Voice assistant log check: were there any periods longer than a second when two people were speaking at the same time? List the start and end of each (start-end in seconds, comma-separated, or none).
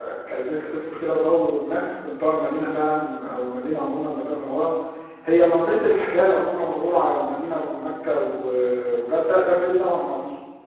none